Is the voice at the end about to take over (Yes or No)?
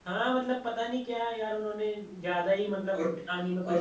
Yes